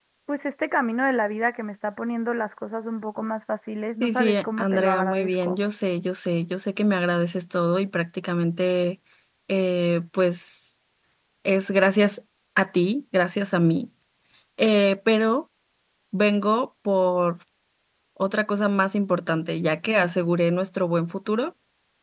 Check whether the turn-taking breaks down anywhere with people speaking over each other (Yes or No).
Yes